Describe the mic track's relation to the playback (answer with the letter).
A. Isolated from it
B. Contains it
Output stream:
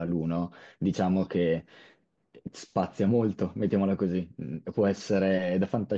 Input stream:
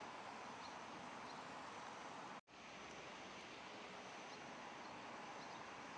A